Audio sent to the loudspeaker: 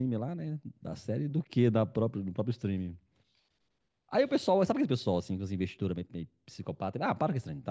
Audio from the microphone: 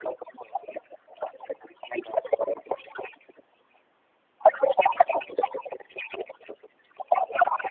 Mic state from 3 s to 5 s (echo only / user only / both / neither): echo only